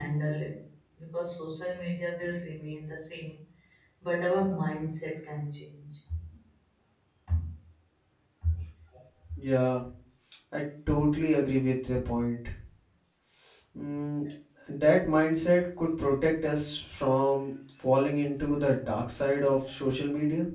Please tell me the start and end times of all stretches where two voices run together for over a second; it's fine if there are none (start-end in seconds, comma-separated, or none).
none